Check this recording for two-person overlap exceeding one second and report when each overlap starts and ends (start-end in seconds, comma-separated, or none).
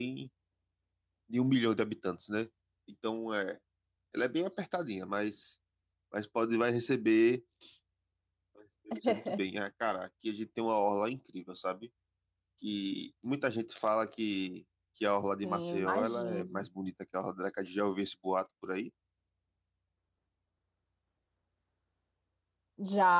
15.4-16.6